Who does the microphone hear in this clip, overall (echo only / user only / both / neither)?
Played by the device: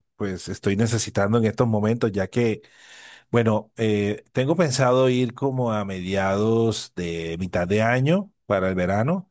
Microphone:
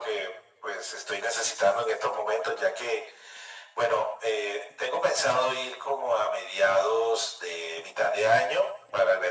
echo only